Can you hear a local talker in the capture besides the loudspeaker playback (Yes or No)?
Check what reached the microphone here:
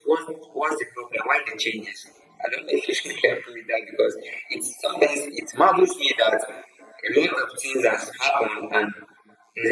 No